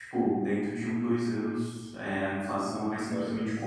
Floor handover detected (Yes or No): Yes